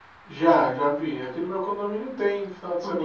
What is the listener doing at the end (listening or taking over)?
taking over